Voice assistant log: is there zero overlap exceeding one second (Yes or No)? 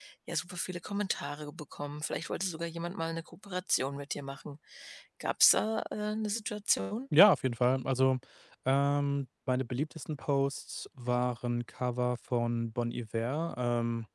Yes